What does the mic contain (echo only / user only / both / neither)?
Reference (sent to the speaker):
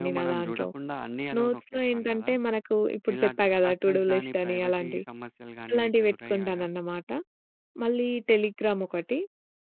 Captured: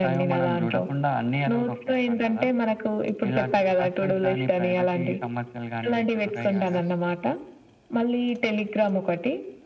echo only